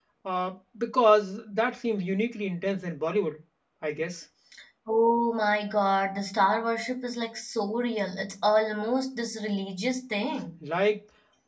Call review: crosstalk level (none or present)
none